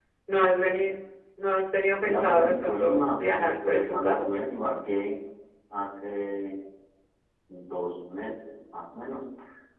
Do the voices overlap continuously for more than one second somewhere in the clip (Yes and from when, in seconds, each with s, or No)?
Yes, from 2.0 s